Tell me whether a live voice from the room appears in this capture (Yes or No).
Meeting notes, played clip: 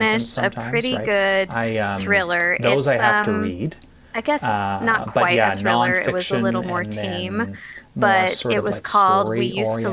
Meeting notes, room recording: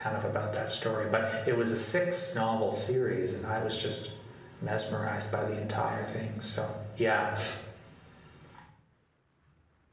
Yes